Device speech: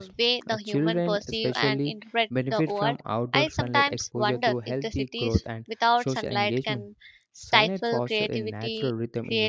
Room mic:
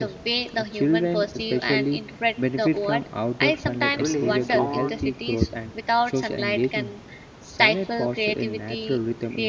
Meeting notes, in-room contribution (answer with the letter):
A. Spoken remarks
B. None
A